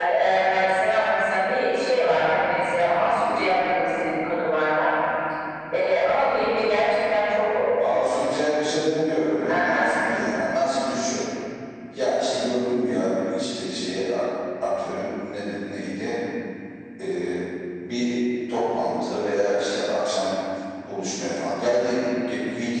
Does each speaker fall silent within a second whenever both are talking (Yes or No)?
Yes